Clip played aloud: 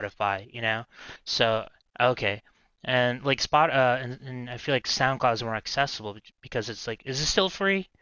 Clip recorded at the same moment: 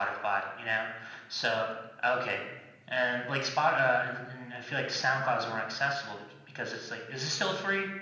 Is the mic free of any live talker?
Yes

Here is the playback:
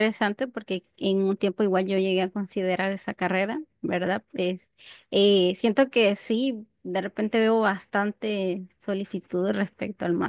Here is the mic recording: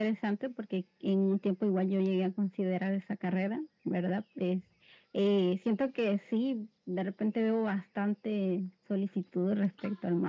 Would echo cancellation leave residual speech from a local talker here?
No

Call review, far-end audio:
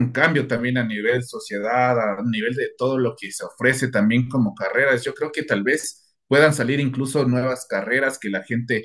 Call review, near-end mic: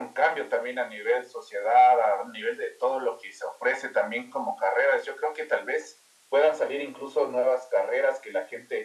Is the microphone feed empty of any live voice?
Yes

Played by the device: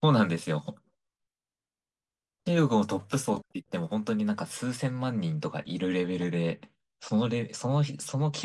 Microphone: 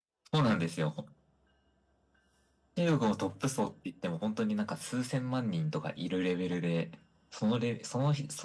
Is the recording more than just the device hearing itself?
No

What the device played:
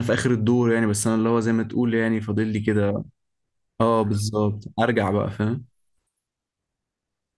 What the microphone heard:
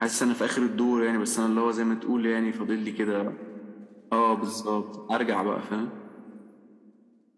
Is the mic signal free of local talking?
Yes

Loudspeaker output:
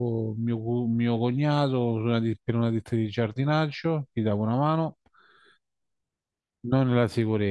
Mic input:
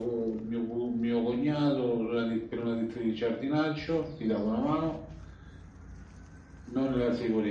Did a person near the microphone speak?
No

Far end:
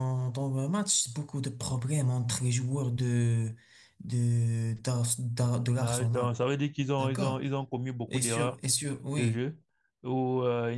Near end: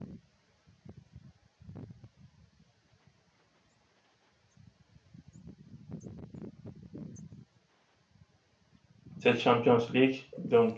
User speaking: Yes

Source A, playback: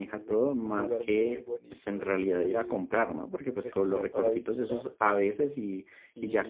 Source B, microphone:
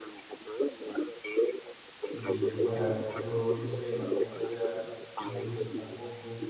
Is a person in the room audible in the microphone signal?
Yes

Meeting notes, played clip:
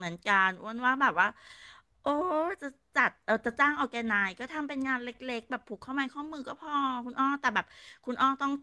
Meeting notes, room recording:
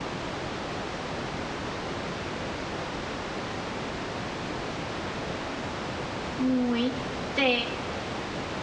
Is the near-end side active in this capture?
Yes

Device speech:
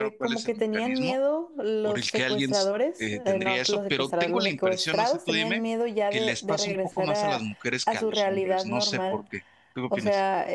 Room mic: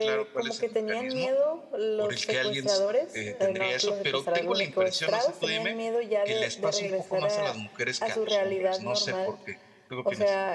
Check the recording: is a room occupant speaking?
No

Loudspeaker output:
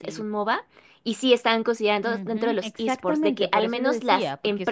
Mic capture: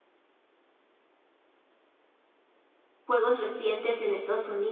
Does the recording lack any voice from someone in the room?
No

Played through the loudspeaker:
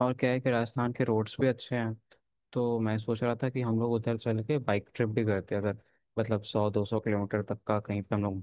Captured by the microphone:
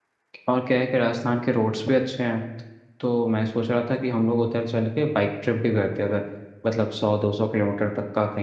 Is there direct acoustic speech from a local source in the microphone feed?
No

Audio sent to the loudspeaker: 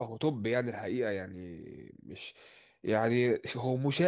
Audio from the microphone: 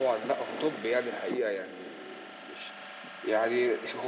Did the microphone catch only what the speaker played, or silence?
Yes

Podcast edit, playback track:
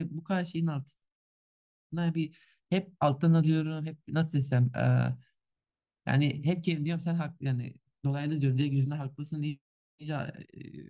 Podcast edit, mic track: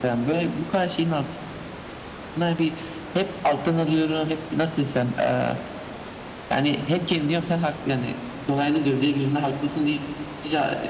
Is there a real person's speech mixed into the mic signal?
No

